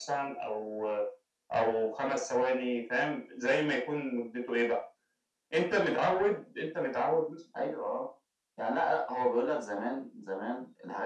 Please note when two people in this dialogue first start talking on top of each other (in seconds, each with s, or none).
none